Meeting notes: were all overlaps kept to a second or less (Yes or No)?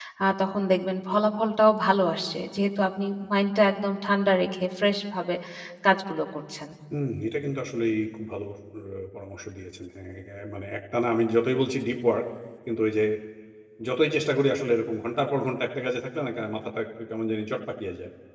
Yes